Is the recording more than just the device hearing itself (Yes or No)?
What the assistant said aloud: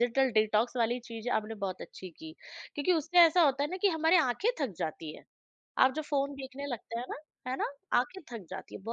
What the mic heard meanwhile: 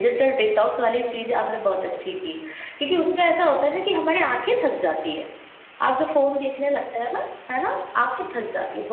No